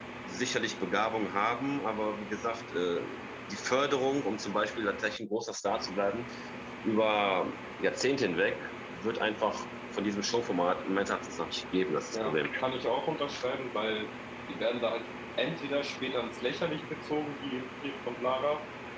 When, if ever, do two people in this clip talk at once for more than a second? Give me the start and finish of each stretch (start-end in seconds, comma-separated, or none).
none